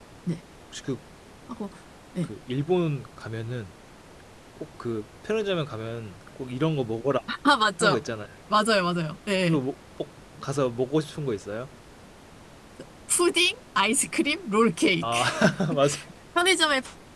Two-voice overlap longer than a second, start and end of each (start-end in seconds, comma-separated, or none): none